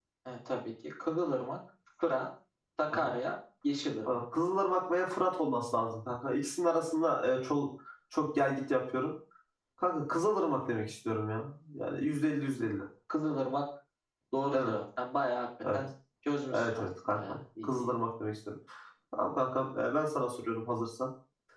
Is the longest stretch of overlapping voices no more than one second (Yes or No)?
No